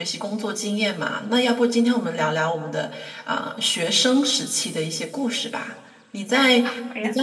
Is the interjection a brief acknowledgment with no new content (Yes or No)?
Yes